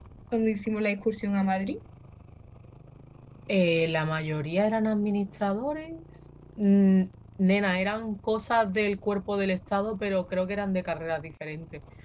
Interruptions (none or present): none